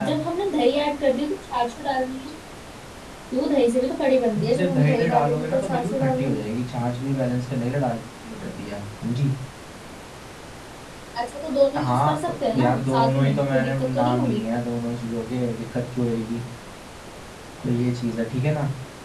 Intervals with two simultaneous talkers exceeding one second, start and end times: 4.5-6.3, 11.7-14.4

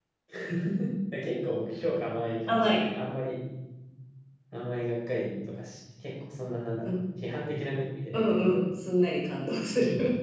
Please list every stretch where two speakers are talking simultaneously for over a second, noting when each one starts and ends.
none

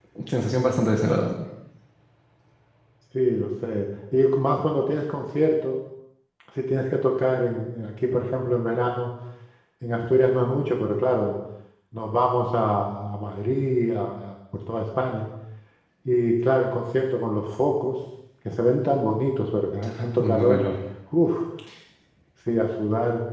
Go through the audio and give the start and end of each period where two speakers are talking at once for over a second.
none

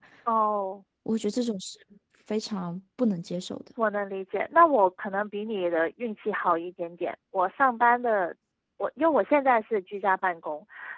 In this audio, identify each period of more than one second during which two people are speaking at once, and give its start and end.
none

